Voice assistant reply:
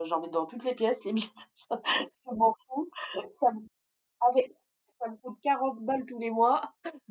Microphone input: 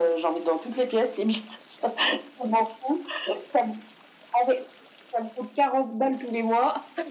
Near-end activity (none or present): none